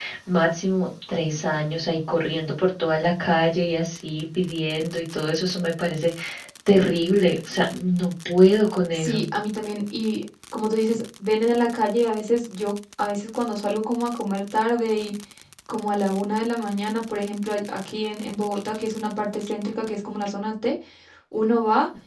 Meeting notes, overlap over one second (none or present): none